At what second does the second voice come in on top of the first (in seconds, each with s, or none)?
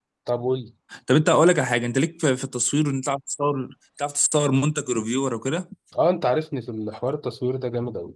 none